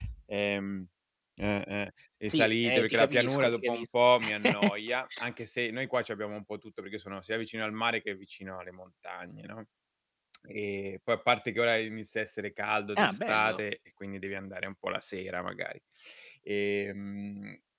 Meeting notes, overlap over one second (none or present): present